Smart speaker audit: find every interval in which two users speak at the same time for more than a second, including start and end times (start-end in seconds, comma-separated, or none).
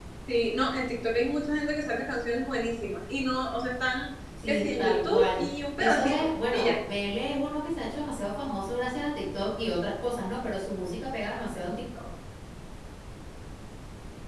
4.5-6.8